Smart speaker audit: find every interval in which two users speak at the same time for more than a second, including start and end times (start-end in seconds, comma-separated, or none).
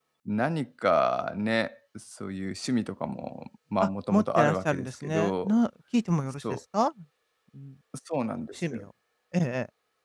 3.8-5.5